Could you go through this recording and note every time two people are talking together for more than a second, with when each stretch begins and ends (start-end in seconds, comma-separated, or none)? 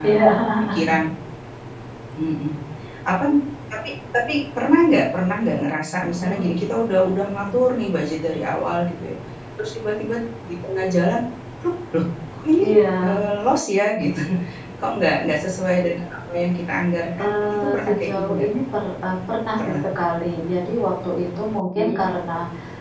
17.2-18.4